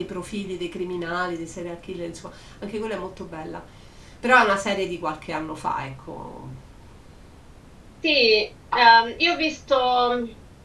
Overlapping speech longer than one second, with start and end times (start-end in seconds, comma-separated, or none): none